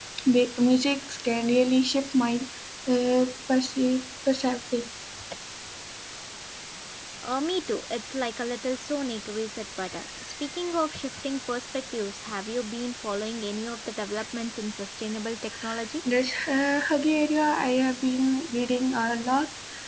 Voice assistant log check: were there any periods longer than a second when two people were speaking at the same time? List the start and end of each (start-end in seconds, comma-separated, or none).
none